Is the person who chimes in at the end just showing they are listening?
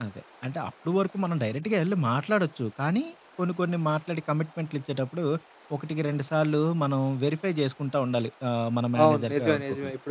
No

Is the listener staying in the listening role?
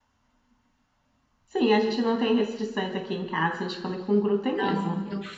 No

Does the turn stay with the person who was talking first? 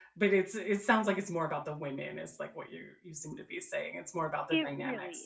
No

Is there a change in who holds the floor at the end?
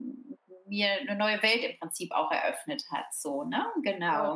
Yes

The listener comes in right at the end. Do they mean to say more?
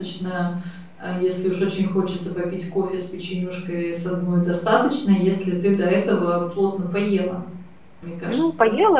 Yes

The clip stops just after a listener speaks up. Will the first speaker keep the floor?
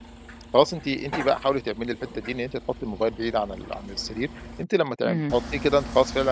Yes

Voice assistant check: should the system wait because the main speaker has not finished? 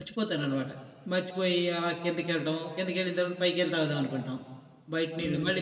Yes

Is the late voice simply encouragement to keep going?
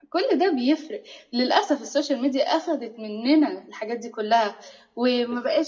Yes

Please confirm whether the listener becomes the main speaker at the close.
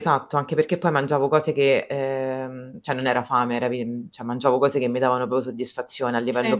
No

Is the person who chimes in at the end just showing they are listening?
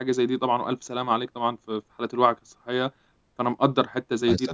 Yes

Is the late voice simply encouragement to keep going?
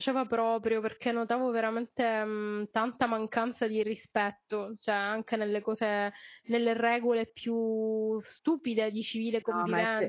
No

